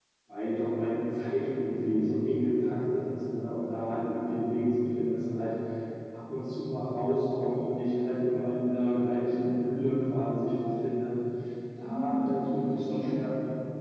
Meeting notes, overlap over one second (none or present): present